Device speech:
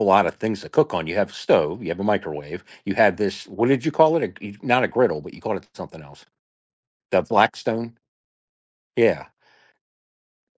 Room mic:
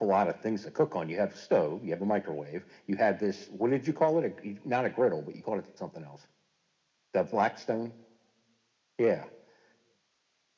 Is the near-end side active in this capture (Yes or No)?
No